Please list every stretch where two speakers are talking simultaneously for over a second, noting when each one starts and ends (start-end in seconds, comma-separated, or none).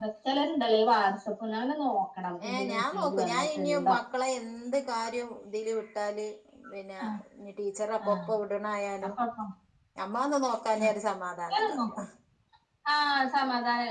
2.5-3.9